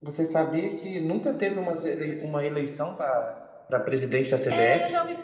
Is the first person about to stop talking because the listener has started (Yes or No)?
Yes